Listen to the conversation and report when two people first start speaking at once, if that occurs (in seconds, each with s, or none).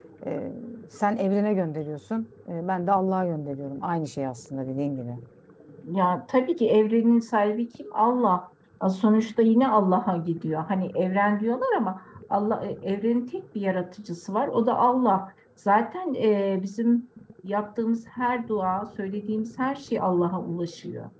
none